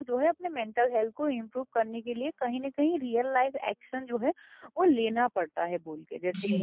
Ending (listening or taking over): taking over